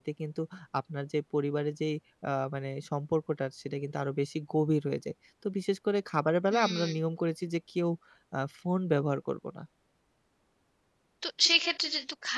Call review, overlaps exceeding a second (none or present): none